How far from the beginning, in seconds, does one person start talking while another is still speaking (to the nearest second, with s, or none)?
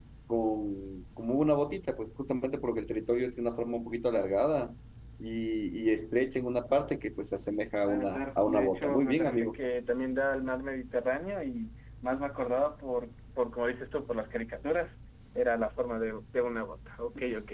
8 s